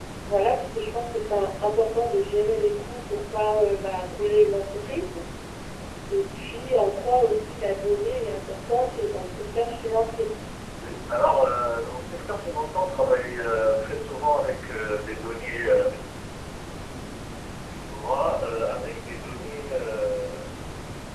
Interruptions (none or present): none